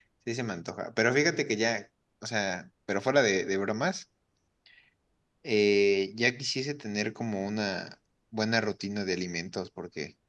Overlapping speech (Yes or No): No